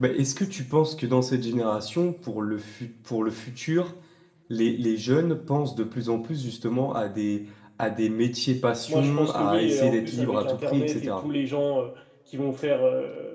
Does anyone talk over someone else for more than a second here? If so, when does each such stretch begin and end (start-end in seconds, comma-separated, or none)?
8.9-11.2